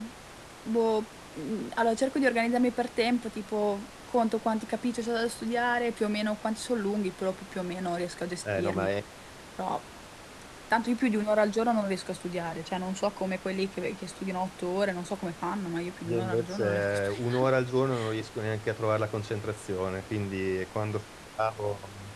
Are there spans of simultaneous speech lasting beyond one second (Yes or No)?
Yes